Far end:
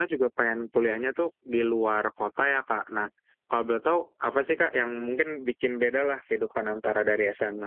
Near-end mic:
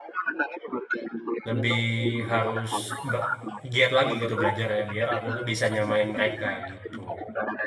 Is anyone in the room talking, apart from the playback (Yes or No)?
Yes